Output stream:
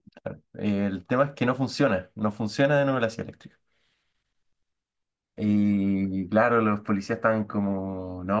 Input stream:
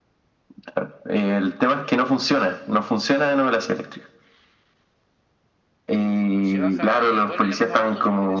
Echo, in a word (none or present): present